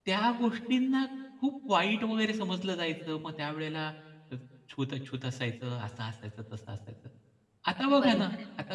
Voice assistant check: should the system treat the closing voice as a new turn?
No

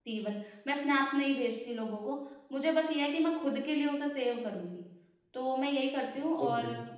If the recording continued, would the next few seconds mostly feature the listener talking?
No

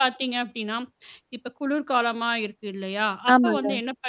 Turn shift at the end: No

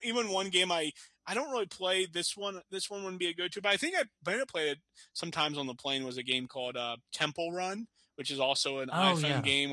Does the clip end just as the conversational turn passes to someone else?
No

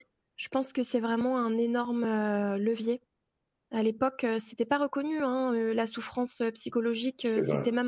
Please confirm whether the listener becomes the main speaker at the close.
No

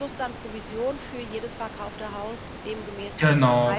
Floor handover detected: Yes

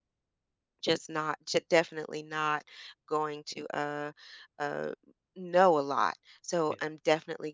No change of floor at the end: Yes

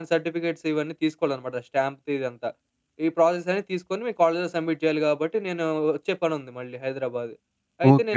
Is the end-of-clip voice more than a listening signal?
Yes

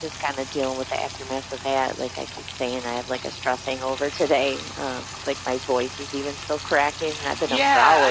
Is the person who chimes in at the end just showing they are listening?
No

